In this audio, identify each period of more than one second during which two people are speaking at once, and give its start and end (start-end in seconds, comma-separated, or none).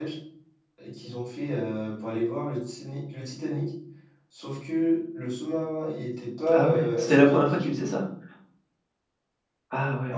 6.5-7.8